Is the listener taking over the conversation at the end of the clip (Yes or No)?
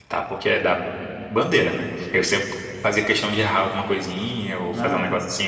No